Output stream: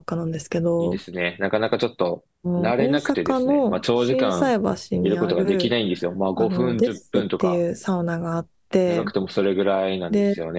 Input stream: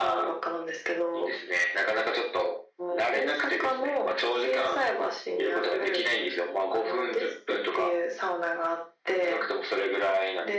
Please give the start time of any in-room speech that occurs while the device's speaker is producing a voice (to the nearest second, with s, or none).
none